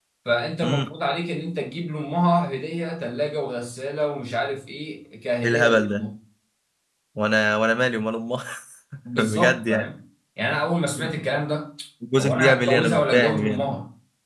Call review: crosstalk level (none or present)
present